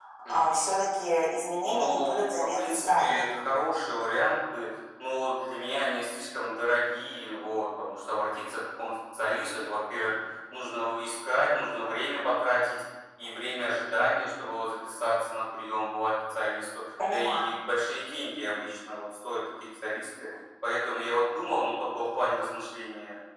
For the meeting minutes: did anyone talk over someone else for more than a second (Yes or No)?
Yes